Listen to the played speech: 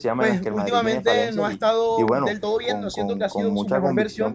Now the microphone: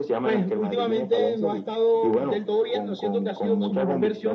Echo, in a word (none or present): present